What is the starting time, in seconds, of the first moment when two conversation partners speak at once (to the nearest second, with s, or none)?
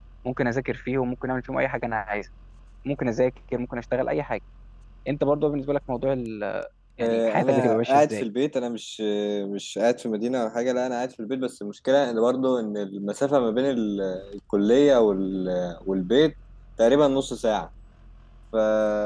7 s